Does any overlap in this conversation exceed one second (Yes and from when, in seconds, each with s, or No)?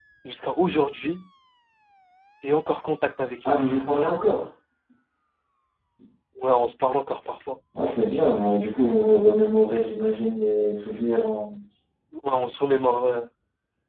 No